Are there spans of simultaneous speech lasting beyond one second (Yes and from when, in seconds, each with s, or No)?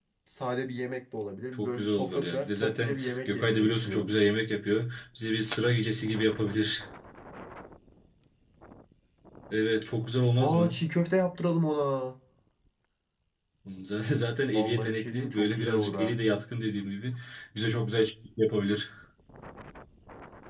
Yes, from 1.5 s